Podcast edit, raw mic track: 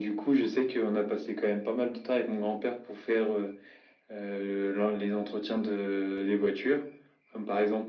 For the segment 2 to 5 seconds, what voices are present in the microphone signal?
echo only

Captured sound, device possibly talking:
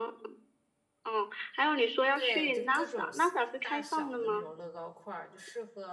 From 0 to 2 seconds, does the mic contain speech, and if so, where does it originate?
echo only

